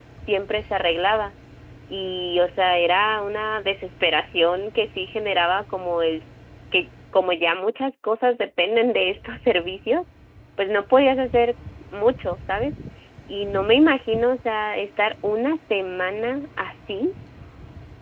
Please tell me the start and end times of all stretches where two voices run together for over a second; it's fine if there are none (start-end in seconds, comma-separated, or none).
none